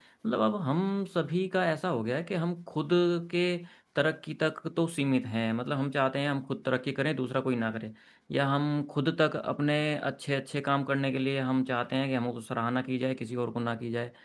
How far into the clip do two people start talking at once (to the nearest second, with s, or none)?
none